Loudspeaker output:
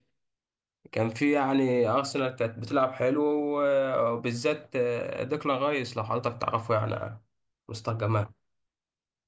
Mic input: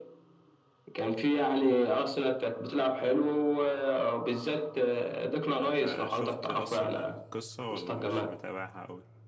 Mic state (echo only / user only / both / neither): both